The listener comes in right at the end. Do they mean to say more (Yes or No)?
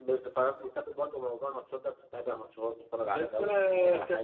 Yes